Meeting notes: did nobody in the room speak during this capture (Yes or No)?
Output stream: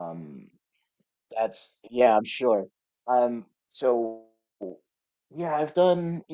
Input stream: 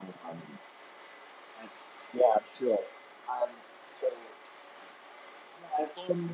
Yes